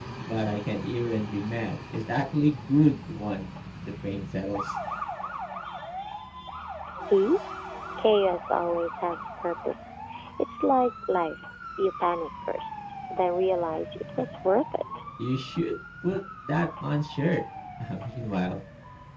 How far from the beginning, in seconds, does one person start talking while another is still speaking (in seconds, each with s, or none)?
none